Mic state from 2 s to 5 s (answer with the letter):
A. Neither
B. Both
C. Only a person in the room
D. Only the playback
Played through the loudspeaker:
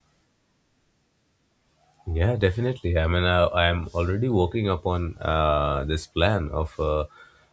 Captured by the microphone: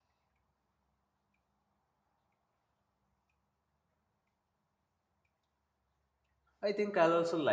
A